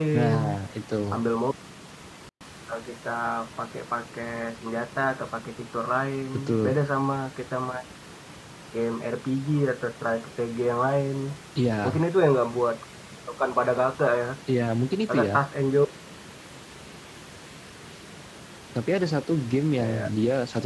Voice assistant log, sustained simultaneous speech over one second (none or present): none